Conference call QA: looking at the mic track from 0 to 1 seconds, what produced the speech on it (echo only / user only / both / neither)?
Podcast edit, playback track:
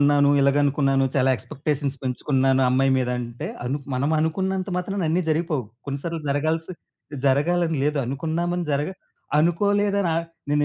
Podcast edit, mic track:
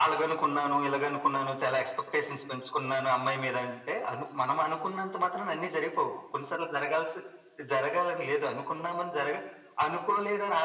echo only